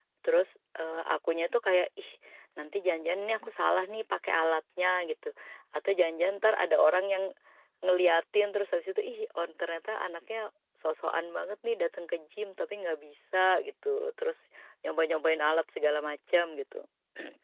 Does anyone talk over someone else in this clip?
No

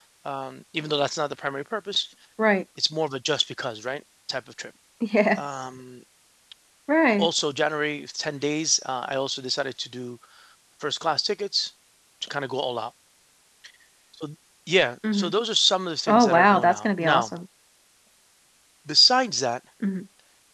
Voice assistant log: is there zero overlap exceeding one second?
No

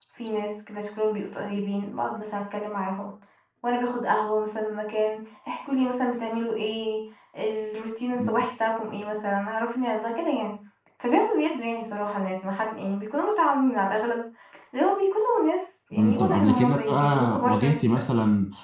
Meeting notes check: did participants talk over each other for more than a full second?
Yes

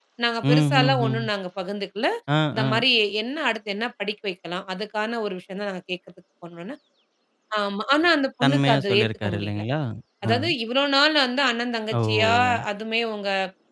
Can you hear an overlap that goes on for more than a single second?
Yes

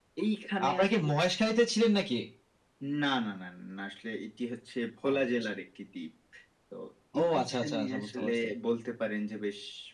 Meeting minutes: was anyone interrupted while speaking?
Yes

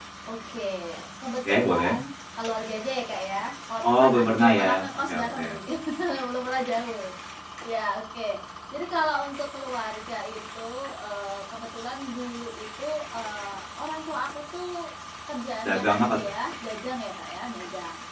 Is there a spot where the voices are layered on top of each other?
Yes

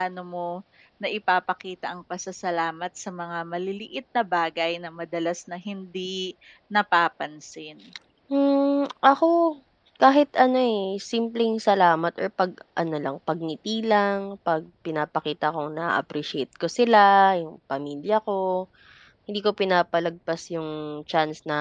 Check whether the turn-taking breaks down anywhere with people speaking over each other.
No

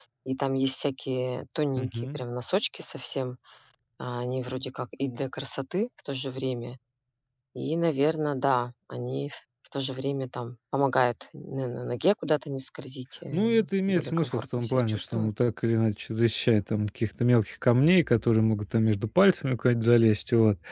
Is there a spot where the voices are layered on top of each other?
Yes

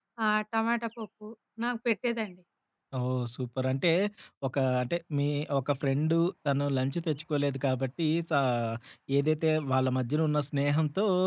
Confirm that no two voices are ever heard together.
Yes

